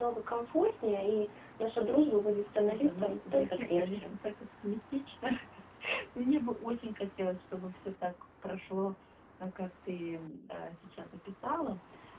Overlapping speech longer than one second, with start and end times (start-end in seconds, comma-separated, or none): 2.5-4.1